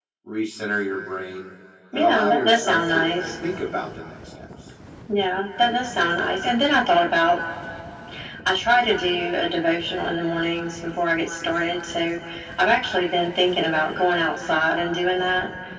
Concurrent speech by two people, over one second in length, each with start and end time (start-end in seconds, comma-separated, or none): 1.9-3.3